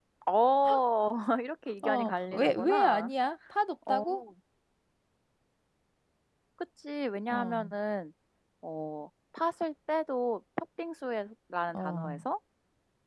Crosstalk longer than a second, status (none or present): present